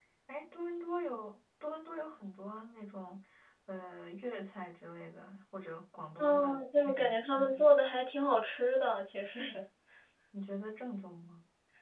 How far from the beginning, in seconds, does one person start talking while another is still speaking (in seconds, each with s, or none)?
6.2 s